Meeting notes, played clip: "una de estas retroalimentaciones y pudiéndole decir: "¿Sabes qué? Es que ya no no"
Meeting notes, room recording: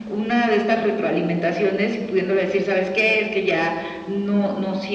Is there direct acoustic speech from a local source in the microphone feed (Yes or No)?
No